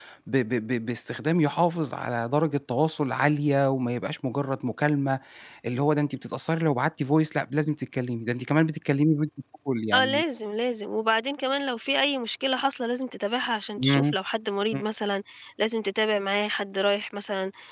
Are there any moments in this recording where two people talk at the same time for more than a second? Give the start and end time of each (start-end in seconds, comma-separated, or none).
none